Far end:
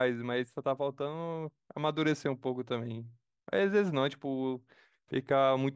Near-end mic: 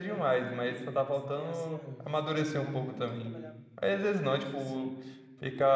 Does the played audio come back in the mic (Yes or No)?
Yes